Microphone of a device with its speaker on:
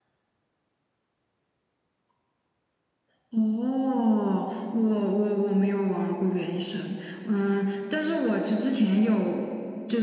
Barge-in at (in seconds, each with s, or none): none